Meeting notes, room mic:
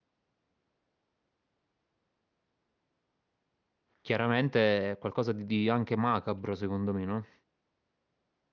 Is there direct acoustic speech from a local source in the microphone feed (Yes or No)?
Yes